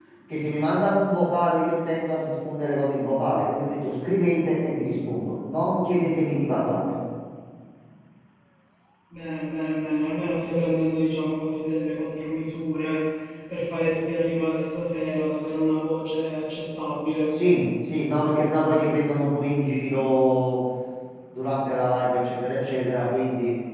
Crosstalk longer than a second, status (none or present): none